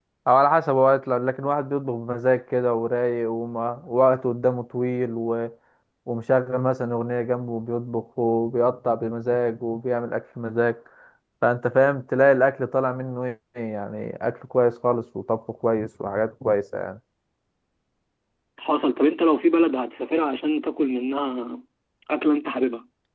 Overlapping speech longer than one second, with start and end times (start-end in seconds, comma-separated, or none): none